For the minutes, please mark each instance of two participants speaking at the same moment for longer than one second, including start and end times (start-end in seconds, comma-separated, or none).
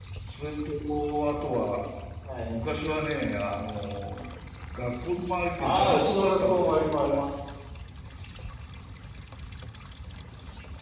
5.6-7.2